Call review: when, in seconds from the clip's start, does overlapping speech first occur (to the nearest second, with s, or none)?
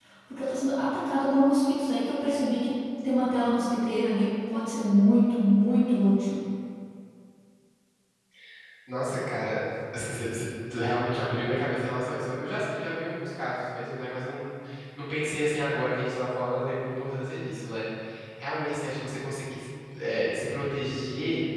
none